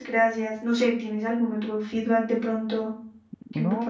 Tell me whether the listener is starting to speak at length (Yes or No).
Yes